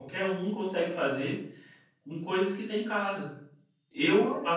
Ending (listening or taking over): listening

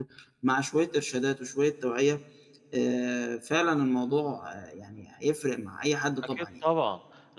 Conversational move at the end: taking over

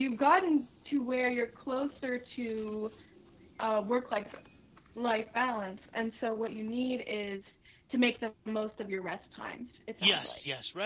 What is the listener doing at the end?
taking over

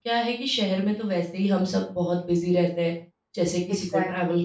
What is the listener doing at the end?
taking over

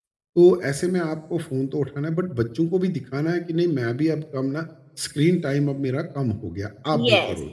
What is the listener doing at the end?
taking over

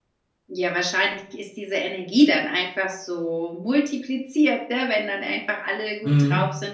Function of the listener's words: listening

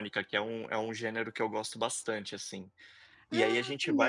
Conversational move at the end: listening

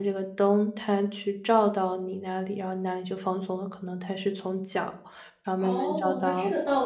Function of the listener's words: taking over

